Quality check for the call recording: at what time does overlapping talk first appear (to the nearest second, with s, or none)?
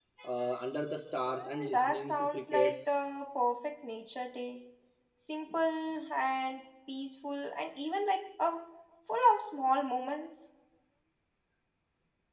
1 s